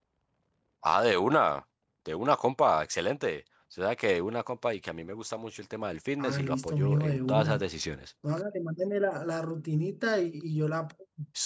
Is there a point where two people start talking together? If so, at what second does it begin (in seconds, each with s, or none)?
6.2 s